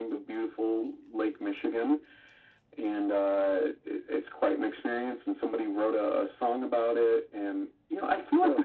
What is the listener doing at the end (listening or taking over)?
listening